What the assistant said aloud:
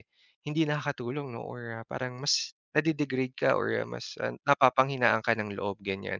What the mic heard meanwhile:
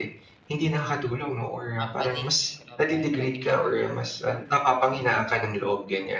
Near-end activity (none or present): present